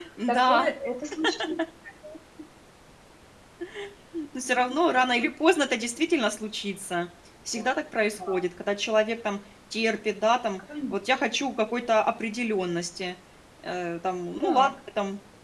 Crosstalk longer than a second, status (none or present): none